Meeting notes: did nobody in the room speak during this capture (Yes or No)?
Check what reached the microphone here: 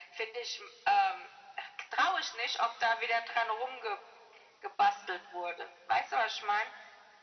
Yes